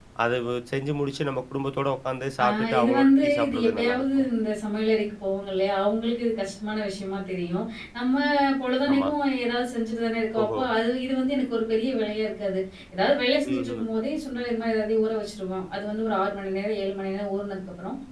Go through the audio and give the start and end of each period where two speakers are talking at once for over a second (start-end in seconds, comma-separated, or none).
2.4-4.2